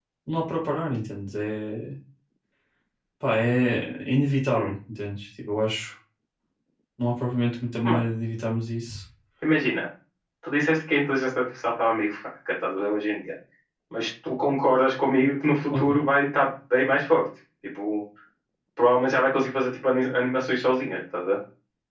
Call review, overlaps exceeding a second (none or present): none